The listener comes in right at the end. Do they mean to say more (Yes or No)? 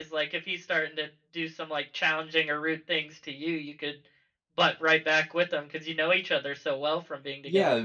Yes